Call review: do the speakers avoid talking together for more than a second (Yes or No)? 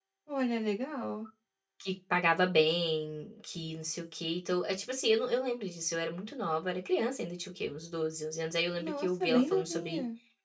No